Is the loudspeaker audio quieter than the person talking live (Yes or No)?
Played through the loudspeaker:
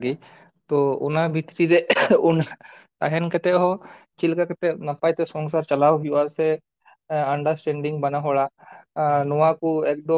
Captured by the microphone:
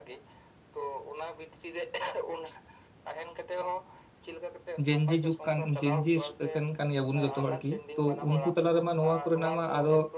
Yes